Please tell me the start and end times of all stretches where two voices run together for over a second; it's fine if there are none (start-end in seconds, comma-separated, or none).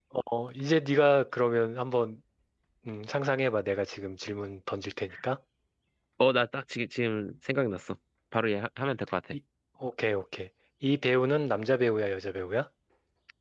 none